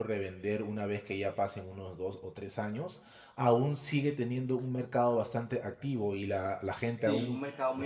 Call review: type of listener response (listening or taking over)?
taking over